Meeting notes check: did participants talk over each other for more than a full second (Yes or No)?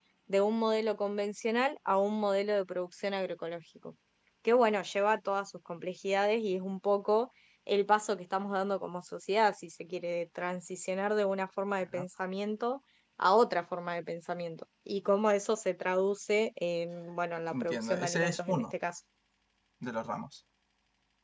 Yes